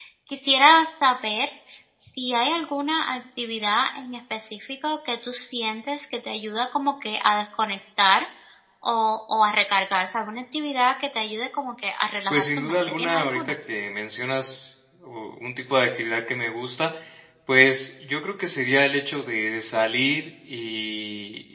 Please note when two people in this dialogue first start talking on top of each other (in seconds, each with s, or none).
12.3 s